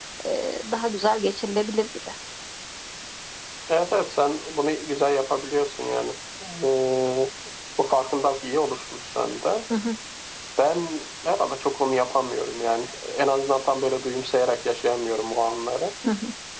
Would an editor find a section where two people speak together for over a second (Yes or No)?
No